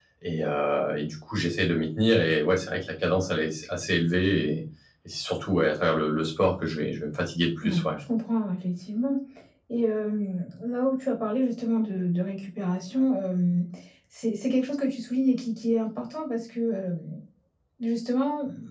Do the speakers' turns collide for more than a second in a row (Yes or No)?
No